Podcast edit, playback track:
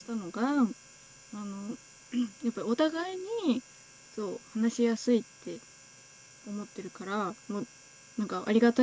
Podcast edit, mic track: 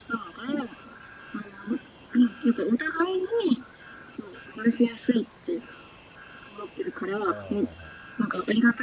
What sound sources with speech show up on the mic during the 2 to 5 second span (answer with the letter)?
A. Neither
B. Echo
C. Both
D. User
B